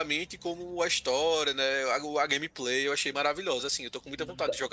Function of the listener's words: taking over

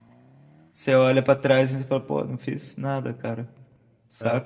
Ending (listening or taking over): taking over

